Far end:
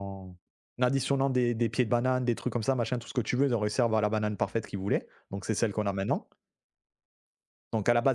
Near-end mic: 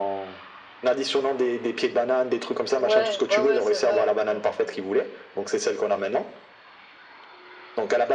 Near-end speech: present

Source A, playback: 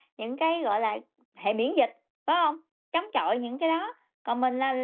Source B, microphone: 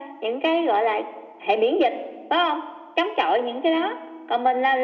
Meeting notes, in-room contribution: none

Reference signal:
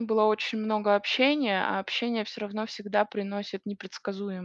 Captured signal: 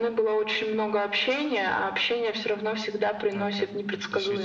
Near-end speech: present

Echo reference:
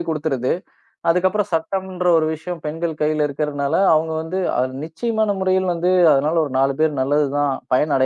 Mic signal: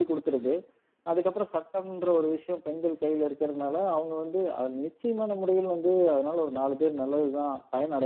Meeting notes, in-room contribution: none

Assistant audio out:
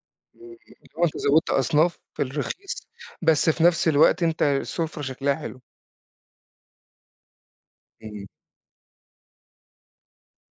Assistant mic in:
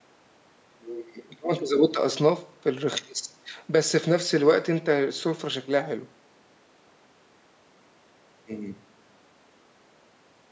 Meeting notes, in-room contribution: none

